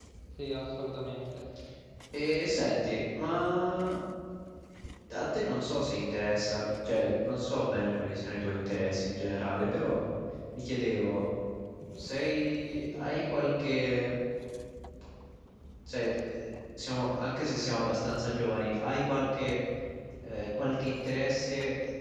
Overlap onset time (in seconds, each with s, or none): none